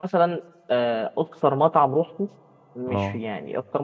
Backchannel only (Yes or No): Yes